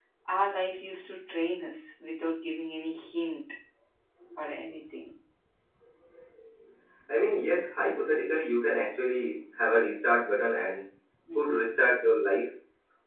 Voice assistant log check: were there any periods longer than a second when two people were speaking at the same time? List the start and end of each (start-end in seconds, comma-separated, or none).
none